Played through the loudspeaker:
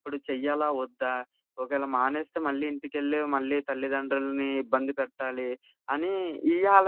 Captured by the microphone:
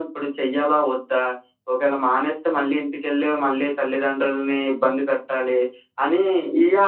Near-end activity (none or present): none